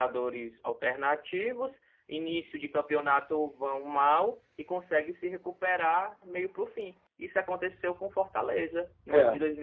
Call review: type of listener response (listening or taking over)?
listening